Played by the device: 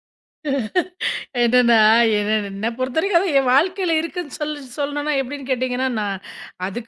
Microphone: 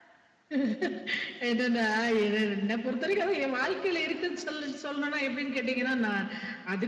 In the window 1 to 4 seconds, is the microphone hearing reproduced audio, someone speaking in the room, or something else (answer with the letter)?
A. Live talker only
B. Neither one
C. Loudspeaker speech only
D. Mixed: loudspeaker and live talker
C